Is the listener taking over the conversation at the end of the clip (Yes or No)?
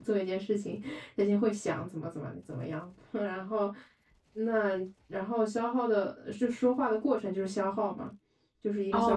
Yes